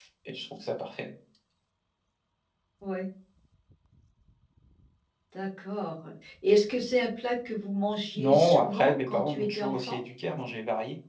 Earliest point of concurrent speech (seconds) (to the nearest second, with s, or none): 8 s